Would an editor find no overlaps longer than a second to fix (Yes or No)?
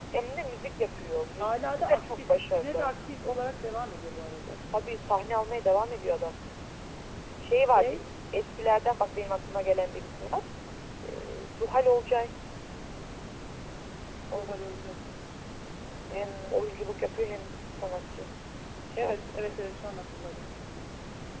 No